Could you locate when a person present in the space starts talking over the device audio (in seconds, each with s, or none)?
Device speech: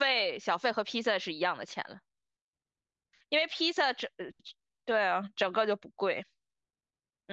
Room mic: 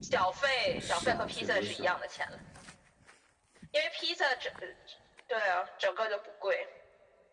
0.8 s